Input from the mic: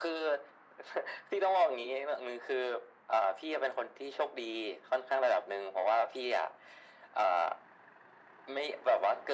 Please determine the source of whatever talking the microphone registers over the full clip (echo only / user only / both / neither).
echo only